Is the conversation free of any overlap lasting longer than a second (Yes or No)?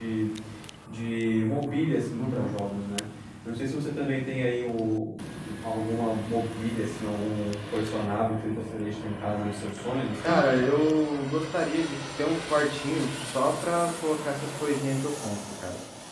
Yes